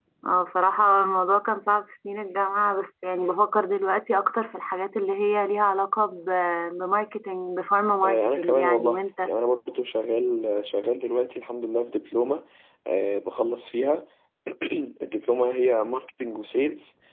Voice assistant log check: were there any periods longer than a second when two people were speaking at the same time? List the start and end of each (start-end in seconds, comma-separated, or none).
8.0-9.3